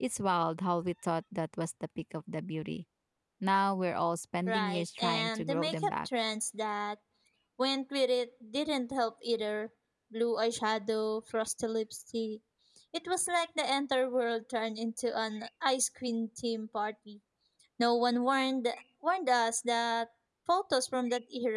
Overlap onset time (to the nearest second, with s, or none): 4 s